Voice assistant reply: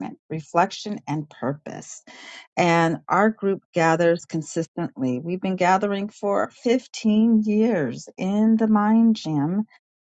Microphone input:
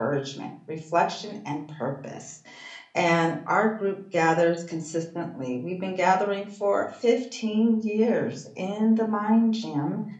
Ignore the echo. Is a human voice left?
No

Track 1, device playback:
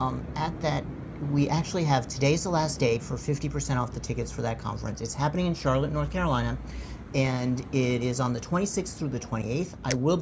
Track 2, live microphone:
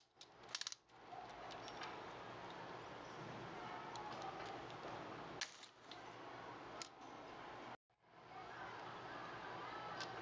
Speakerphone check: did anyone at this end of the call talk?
No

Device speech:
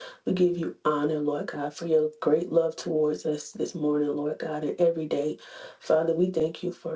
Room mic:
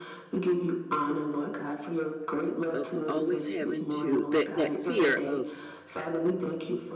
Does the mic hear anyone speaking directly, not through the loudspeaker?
Yes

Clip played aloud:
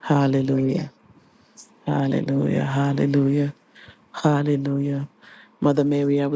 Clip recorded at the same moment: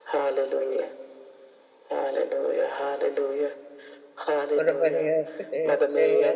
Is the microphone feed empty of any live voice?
No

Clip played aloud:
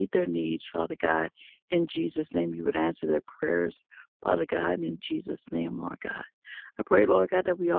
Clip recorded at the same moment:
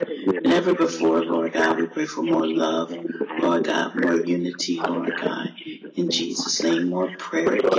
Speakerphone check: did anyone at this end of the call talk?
Yes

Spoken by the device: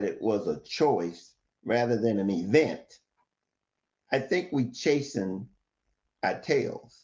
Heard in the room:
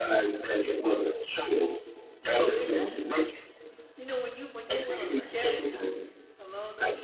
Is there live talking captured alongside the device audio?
Yes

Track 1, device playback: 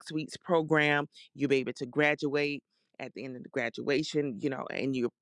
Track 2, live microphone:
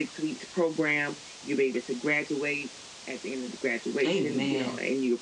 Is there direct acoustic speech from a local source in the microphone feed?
Yes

